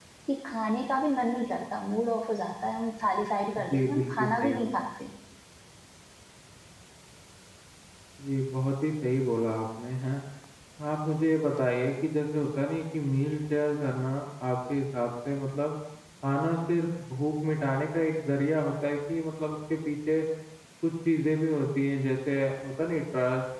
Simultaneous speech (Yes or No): Yes